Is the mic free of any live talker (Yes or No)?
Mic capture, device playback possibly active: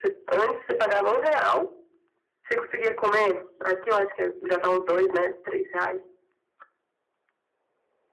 Yes